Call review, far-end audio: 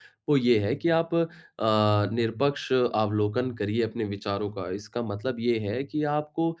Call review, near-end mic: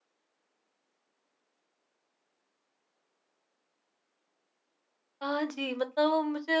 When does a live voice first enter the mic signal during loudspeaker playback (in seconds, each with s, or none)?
5.2 s